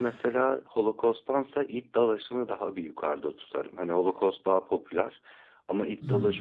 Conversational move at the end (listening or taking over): listening